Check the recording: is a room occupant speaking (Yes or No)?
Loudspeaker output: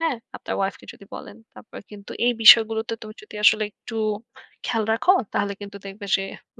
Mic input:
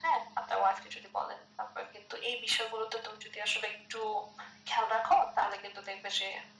No